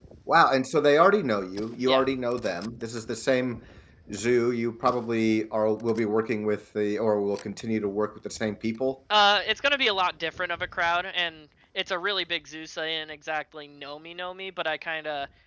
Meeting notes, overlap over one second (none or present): none